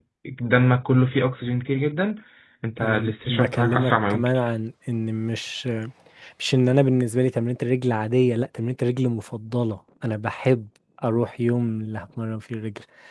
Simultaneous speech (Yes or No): Yes